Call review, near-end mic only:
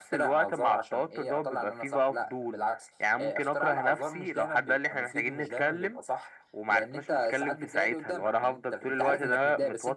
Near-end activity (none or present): none